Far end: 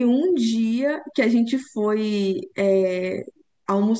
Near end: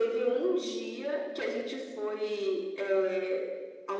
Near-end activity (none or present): none